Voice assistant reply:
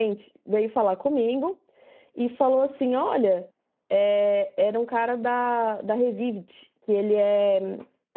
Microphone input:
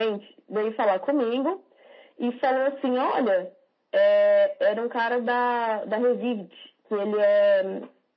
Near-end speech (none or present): none